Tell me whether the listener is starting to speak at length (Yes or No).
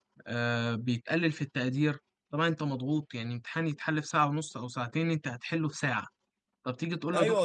Yes